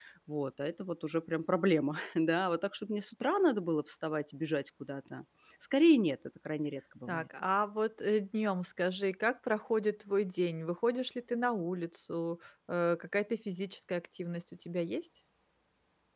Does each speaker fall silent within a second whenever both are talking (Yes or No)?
Yes